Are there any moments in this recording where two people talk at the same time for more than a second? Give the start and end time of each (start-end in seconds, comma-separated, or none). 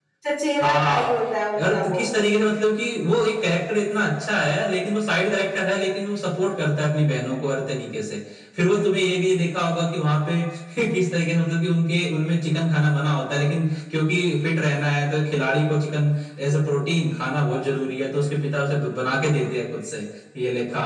none